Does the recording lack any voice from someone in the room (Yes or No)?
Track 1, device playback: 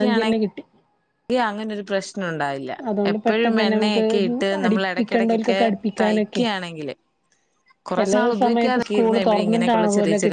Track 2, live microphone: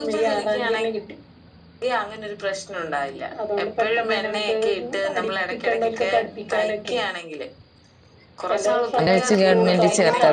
No